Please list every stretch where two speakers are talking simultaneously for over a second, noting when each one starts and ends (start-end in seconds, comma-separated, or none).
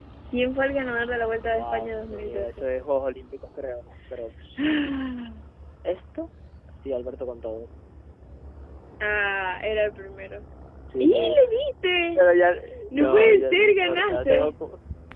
1.5-2.7, 12.9-14.5